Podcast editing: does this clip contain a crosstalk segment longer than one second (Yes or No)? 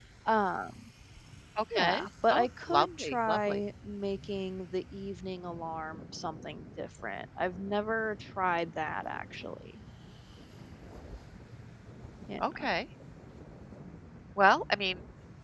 Yes